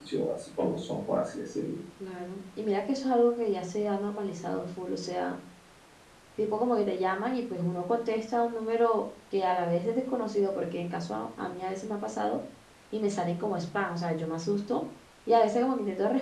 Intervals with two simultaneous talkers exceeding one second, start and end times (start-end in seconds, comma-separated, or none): none